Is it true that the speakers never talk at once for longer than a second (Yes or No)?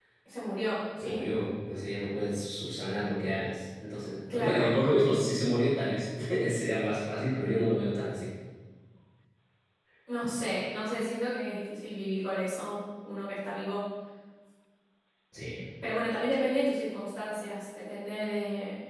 Yes